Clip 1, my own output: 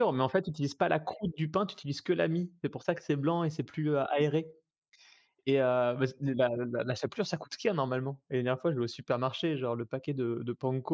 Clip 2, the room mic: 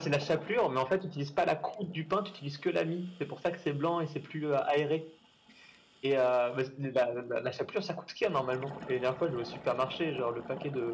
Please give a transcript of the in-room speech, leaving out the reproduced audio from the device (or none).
none